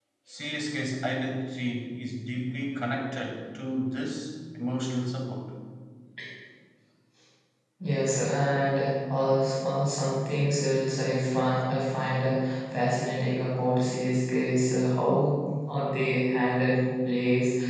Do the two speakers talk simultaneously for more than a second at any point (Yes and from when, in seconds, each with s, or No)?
No